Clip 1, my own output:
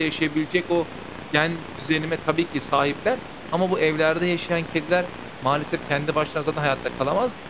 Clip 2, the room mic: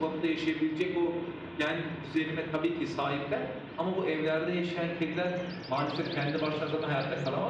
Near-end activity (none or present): none